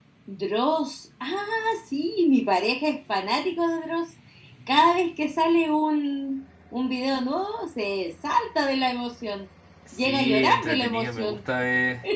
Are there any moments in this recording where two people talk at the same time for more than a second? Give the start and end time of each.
9.9-11.4

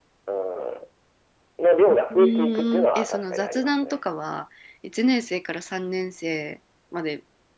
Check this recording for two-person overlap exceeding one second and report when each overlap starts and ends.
1.9-4.0

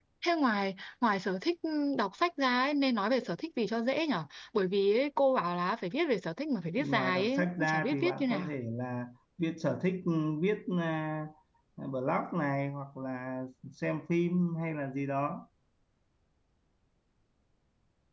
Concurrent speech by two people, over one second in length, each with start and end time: 6.8-8.5

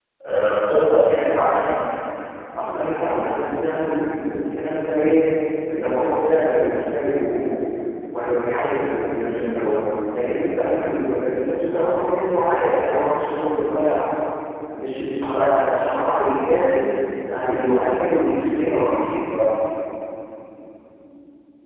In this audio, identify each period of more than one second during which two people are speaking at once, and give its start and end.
none

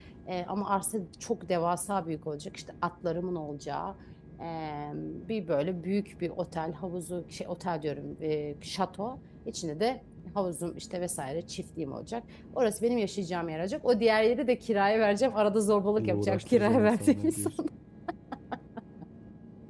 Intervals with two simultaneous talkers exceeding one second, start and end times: 16.0-17.5

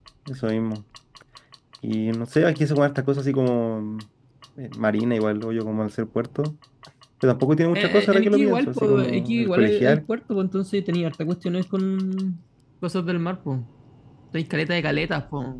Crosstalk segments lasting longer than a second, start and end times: 7.7-10.0

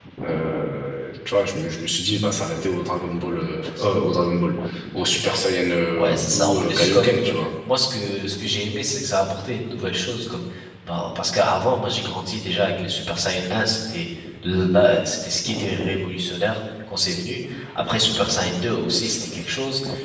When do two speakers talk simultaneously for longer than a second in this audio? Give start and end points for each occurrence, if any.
5.9-7.4

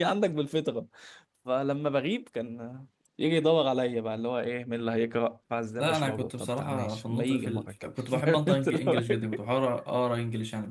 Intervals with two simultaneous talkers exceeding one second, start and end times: 5.8-9.2

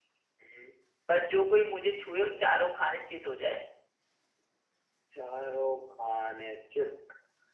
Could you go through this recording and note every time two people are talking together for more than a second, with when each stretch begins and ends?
none

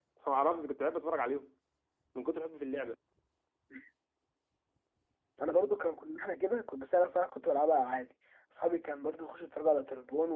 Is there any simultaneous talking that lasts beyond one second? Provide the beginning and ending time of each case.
none

